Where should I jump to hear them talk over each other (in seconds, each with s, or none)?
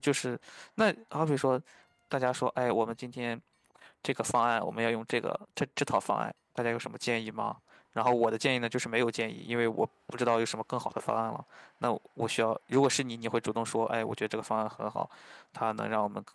none